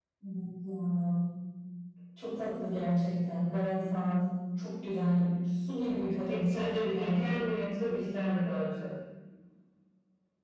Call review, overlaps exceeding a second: present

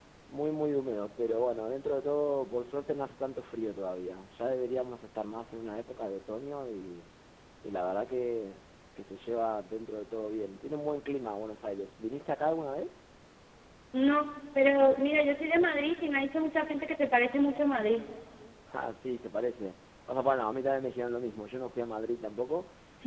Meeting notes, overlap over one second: none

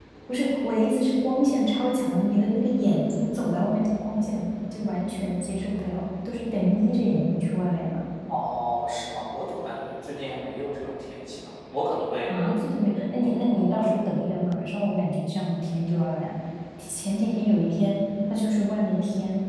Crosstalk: none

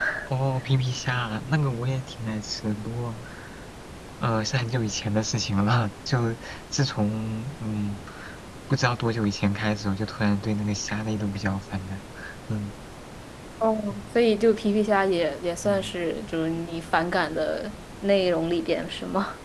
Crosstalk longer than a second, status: none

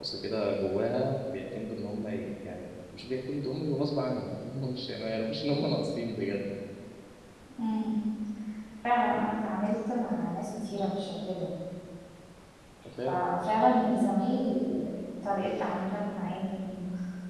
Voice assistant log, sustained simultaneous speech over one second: none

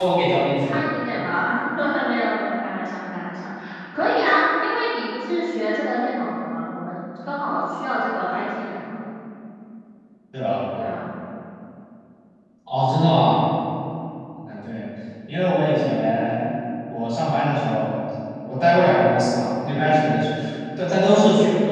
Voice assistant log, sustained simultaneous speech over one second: none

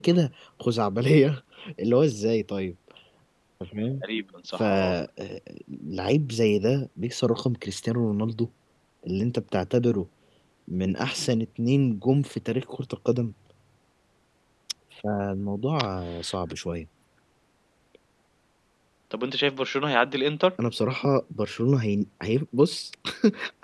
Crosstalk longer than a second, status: none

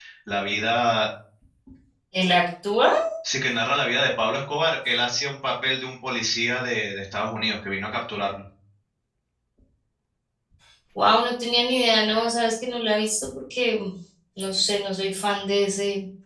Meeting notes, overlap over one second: none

